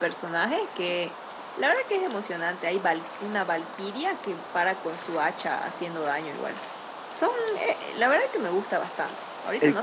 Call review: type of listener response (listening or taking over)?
listening